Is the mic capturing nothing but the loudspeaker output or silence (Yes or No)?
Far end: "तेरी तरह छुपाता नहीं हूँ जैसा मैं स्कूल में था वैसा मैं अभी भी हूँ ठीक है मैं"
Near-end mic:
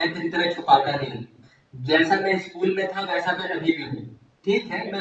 Yes